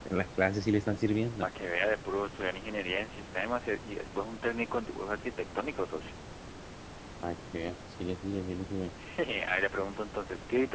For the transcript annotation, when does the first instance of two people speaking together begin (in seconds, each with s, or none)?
none